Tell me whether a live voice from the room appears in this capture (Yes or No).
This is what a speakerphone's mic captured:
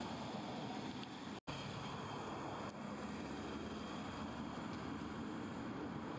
No